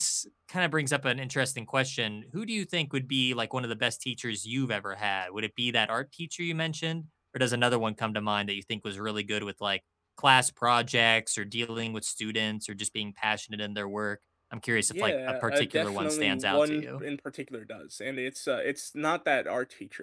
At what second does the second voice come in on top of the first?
14.9 s

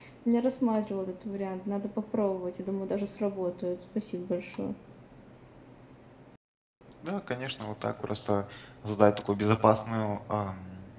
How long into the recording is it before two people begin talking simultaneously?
none

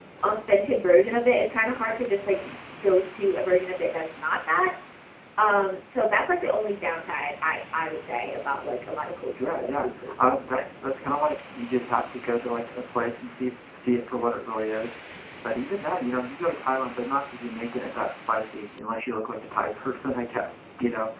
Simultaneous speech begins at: 9.4 s

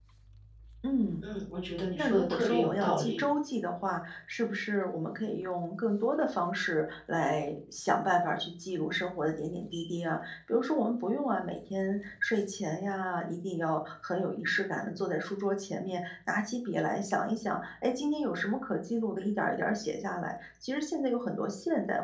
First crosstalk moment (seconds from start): 1.9 s

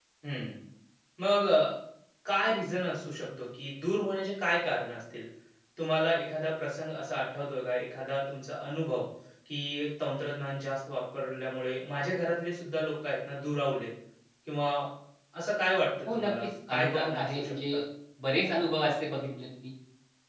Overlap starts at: 16.1 s

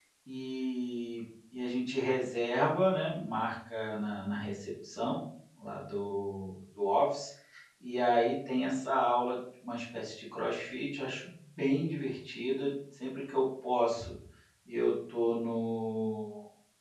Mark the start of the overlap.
none

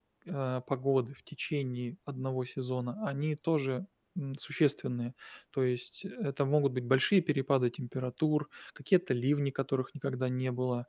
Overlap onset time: none

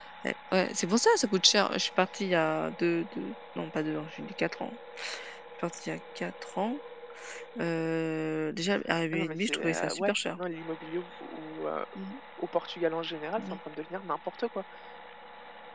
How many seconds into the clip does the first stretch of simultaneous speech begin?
9.1 s

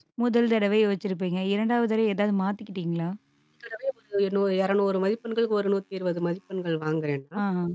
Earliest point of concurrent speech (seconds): none

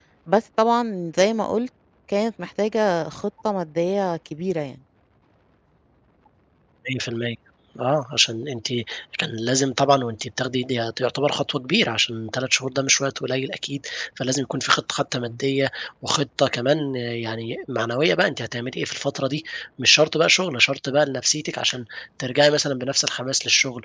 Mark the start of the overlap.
none

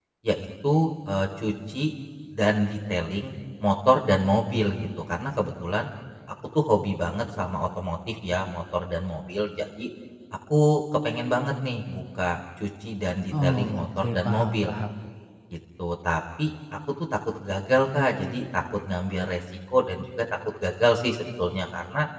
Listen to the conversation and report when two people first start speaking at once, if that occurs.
13.3 s

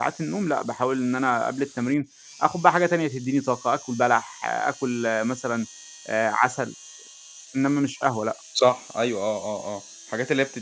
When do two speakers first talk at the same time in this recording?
none

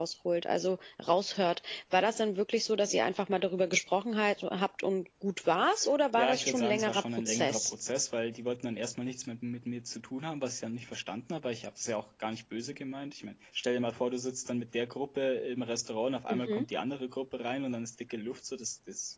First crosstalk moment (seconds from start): 6.2 s

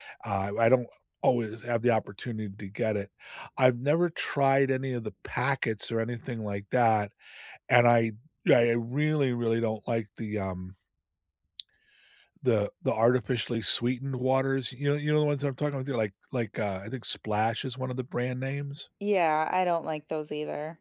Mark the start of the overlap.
none

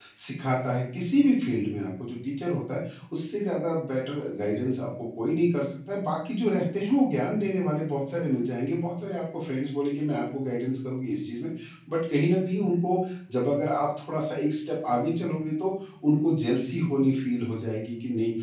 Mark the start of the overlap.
none

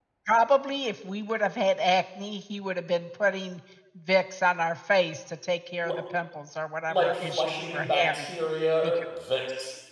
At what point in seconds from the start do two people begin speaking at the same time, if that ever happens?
6.9 s

